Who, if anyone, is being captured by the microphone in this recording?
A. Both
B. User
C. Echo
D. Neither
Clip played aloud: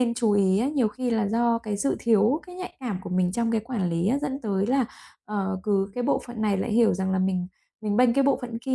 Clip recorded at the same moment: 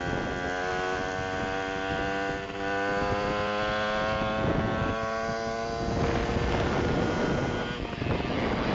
D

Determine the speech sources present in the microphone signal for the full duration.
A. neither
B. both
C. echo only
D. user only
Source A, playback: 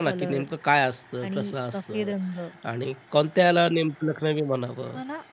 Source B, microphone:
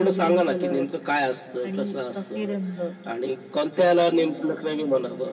B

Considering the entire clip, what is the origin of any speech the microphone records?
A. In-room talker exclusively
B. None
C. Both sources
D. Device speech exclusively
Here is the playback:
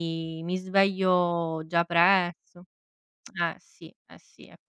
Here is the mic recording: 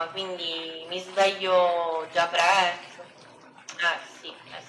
D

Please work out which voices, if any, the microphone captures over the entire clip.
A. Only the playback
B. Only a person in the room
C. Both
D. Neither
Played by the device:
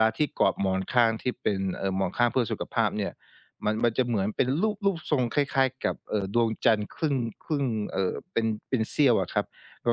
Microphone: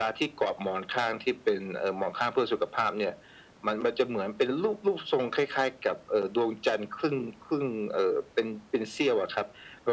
A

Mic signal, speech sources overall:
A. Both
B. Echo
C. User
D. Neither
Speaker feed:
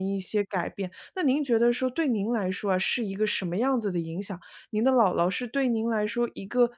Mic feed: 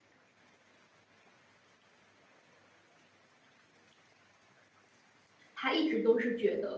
C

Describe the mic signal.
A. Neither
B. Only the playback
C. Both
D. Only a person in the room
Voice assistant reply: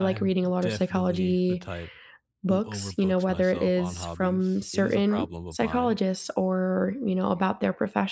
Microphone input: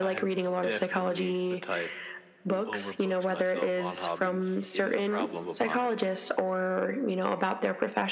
B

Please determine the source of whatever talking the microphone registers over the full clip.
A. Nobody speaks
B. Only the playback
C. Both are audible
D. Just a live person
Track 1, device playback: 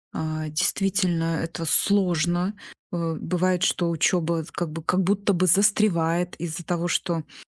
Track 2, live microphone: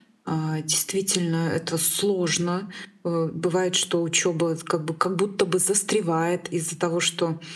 B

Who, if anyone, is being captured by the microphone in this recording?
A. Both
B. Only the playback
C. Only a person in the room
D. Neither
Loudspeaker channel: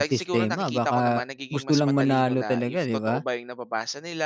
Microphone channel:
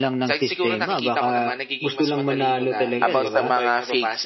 A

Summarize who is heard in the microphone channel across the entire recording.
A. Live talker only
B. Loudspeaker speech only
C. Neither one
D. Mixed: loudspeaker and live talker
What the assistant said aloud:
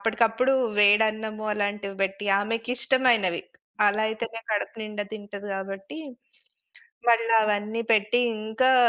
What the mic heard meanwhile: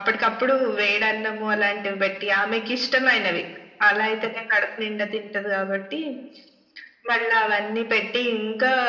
B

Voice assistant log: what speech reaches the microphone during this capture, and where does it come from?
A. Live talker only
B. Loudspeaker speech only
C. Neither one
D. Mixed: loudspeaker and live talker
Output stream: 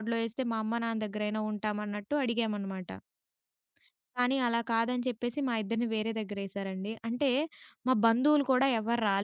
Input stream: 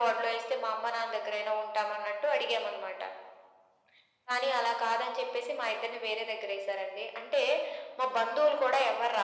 B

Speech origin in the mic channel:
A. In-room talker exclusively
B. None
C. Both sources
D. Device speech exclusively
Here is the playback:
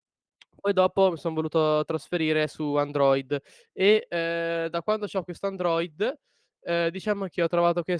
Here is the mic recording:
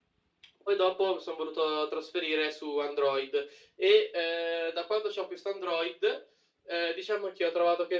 D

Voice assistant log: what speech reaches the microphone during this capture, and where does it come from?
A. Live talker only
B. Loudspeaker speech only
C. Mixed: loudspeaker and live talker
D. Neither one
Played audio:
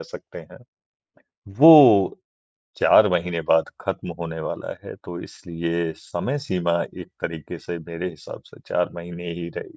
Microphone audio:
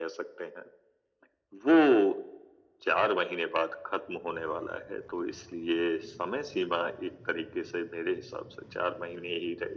B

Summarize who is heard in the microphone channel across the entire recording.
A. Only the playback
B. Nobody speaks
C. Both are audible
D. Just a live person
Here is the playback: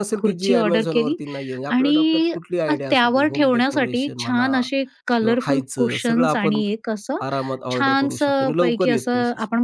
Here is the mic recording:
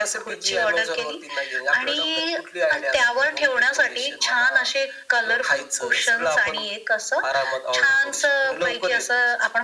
A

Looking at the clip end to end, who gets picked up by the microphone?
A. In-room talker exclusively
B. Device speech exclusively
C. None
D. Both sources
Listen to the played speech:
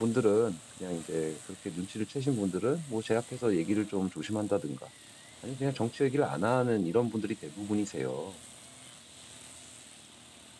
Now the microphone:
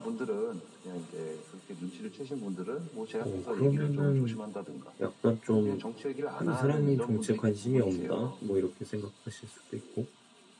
D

